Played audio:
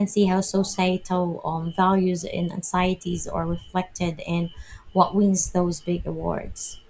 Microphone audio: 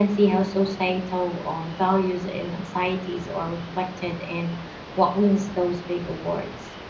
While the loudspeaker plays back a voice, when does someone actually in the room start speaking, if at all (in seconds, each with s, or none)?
none